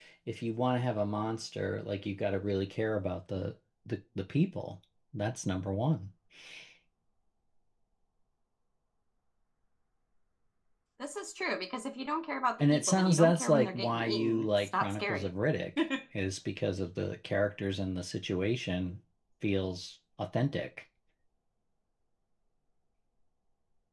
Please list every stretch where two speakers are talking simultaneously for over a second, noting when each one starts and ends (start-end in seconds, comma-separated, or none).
12.6-15.3